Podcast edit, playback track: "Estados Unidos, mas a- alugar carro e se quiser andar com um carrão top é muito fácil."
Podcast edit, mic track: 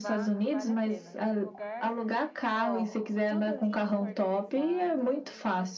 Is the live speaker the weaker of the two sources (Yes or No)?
Yes